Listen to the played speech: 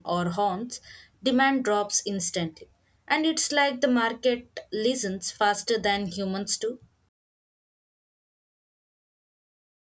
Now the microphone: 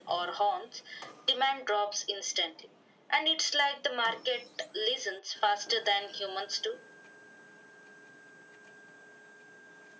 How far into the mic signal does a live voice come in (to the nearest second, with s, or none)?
none